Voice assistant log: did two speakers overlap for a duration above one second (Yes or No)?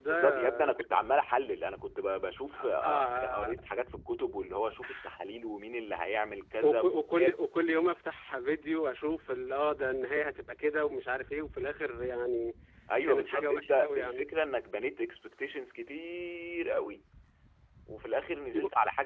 Yes